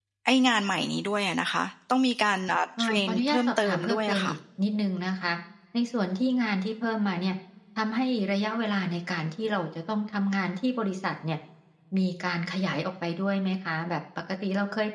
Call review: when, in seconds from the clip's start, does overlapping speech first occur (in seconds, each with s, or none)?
2.8 s